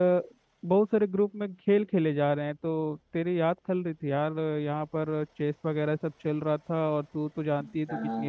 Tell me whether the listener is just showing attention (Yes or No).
No